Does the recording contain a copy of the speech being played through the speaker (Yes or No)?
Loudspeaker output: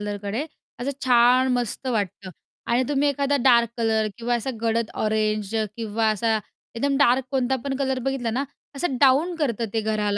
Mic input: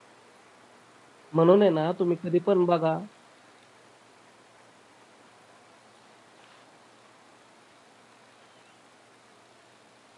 No